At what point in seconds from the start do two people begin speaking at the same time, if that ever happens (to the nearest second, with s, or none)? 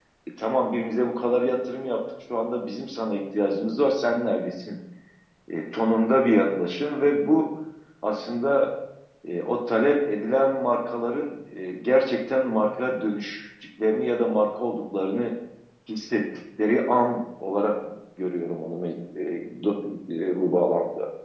none